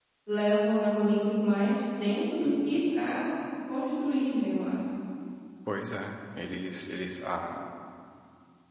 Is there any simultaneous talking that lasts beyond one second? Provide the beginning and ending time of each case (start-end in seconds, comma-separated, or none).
none